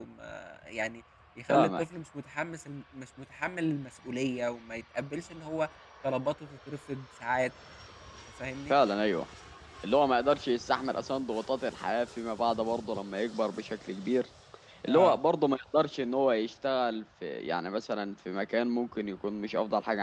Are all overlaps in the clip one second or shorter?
Yes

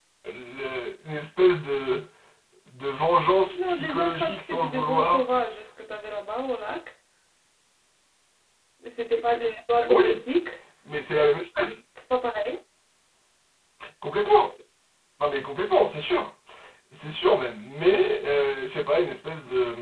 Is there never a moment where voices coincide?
No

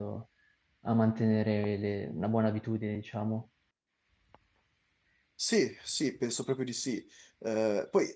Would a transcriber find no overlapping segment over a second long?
Yes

